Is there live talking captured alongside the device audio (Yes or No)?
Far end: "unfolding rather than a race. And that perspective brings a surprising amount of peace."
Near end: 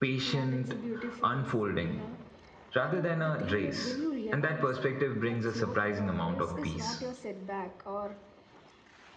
Yes